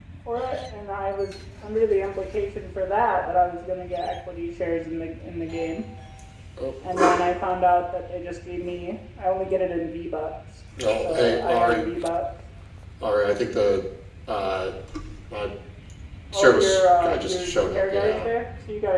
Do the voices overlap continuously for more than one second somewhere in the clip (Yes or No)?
Yes